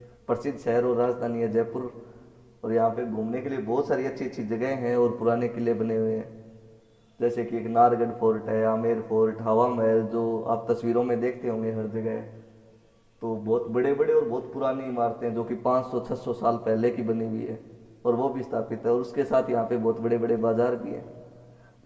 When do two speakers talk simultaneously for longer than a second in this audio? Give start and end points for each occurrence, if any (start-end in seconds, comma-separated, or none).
none